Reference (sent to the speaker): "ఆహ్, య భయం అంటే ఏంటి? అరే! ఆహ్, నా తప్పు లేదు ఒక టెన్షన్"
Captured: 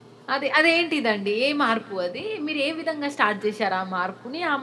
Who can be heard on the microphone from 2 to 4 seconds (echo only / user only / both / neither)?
user only